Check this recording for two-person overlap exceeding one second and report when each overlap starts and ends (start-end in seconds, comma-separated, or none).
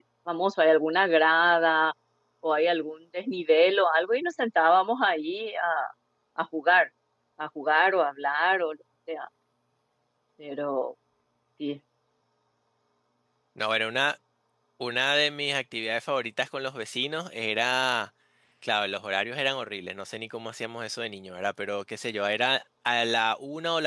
none